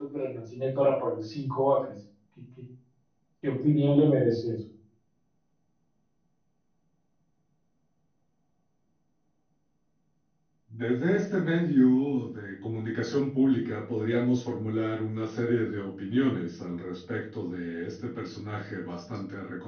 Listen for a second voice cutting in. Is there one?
No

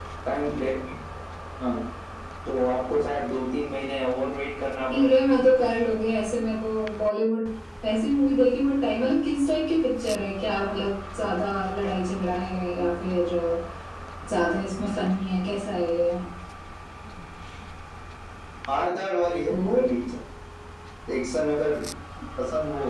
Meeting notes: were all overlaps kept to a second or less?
Yes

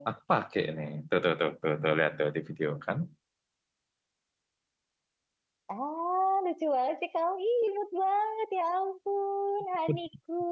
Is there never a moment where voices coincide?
Yes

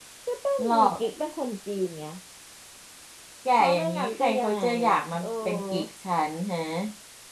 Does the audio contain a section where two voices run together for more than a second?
Yes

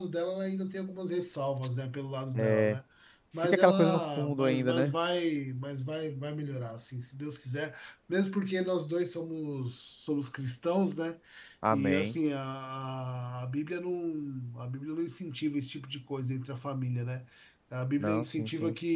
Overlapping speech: Yes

